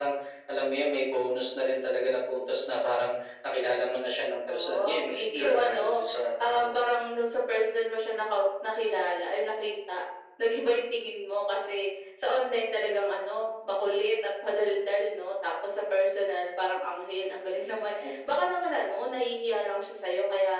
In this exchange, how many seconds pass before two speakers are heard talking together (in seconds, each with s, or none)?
4.5 s